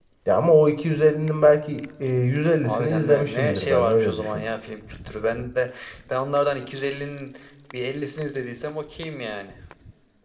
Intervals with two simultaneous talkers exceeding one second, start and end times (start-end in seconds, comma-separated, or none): 2.6-4.4